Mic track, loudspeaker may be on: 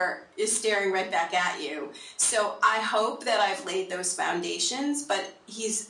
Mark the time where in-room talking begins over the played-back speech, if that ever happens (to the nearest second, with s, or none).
none